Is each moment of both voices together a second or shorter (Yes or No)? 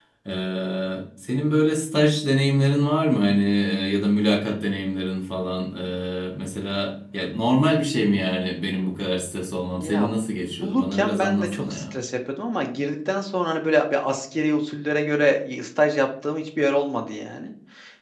No